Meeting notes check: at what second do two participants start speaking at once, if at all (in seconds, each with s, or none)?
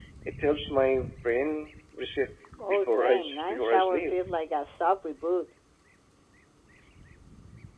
2.7 s